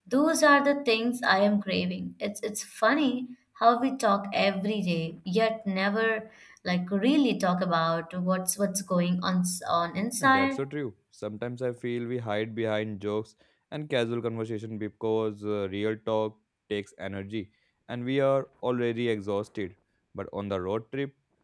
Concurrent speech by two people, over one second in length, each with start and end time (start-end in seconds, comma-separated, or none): none